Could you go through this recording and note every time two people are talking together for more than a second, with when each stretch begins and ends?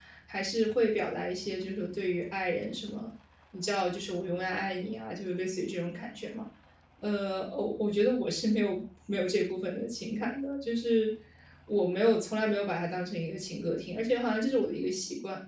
none

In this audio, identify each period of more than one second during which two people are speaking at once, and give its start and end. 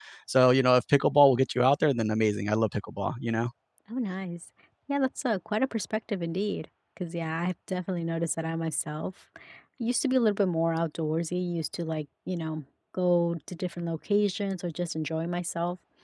none

